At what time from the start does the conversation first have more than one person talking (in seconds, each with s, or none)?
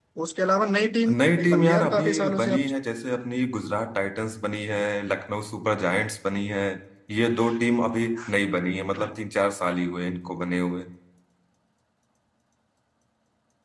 1.1 s